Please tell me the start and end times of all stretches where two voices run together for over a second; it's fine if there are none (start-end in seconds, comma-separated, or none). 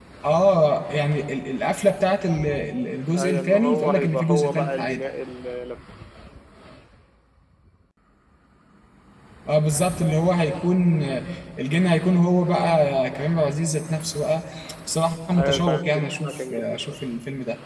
3.2-5.0, 15.4-16.9